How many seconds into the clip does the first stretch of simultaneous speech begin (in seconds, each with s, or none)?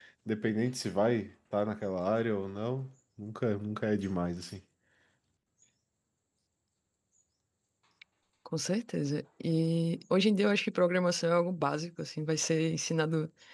none